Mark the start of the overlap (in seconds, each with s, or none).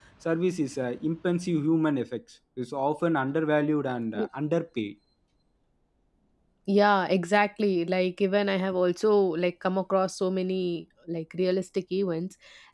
none